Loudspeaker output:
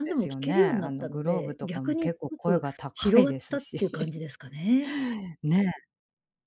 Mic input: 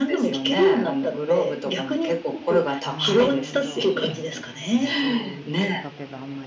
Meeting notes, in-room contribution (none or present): present